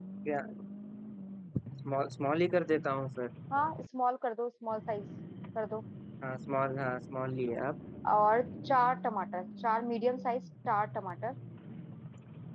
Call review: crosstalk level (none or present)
none